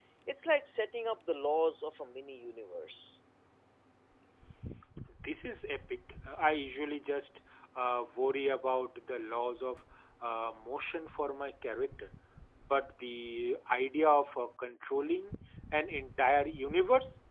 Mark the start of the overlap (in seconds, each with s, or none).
none